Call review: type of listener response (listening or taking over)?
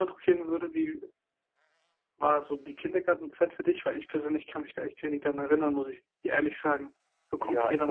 taking over